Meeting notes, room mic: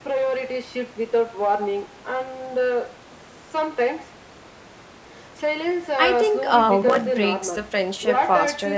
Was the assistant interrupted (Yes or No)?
Yes